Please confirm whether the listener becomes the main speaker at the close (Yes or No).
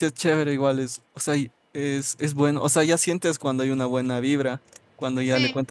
No